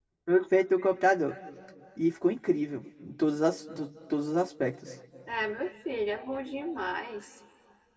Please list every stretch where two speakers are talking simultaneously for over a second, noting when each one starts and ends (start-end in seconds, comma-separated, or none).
none